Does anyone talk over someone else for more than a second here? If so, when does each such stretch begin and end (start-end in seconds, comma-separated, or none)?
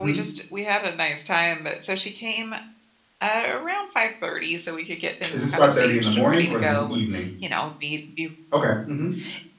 5.3-7.0